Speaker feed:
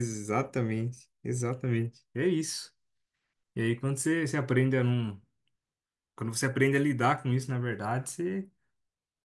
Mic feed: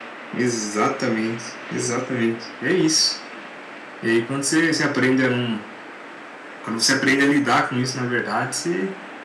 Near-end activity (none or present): none